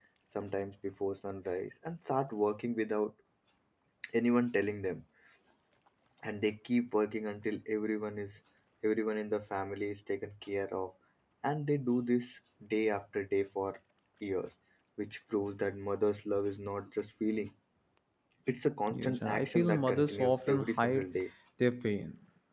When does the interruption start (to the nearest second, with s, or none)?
19 s